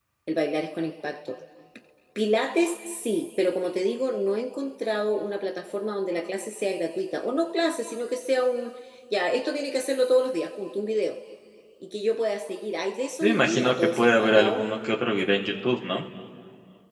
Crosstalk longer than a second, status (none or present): present